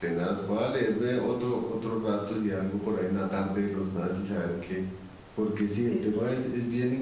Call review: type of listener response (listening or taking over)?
listening